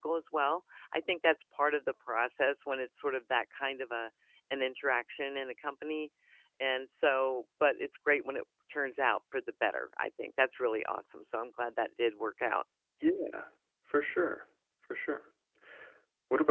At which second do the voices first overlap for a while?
none

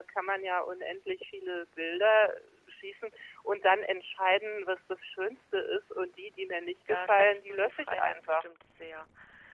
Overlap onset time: 6.9 s

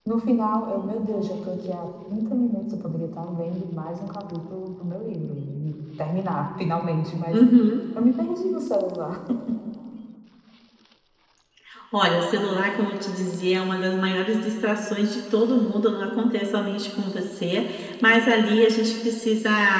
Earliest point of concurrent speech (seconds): none

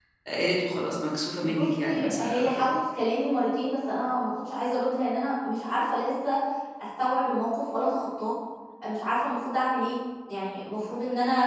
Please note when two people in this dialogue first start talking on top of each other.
1.4 s

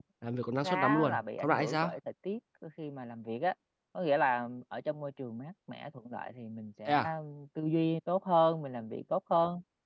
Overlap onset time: 0.6 s

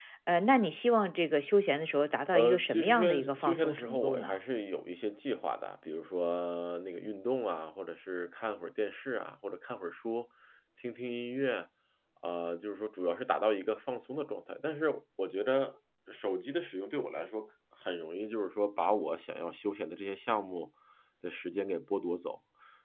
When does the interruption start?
2.3 s

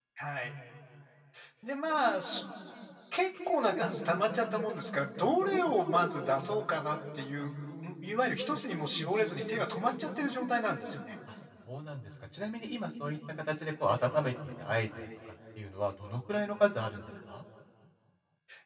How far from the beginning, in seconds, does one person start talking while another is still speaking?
none

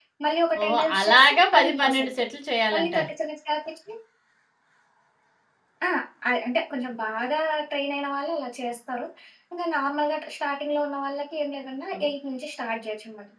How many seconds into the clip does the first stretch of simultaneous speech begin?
0.6 s

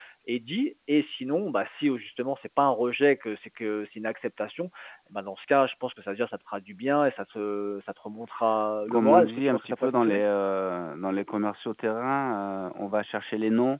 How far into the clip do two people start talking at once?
8.8 s

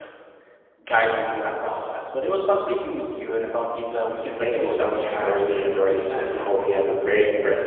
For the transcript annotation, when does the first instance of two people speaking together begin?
4.4 s

